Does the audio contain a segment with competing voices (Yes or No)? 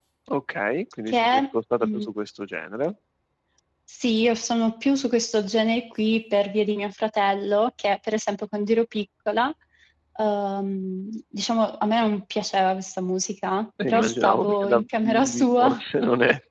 Yes